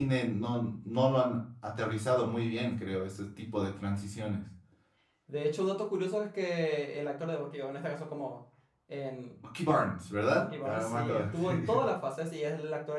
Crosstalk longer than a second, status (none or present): present